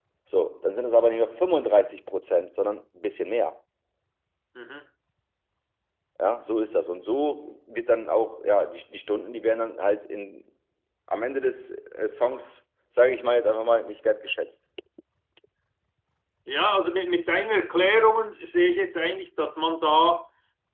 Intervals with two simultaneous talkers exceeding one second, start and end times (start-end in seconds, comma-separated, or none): none